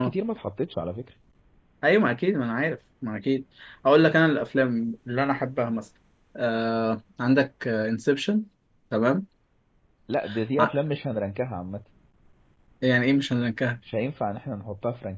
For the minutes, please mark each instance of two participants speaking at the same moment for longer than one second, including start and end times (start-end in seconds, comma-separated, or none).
none